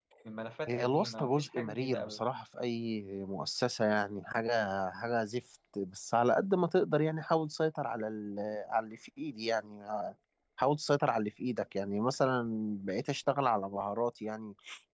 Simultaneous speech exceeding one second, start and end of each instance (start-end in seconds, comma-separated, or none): 0.7-2.2